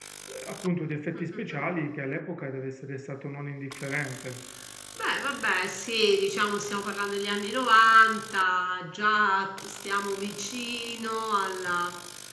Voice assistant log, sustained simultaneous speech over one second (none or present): none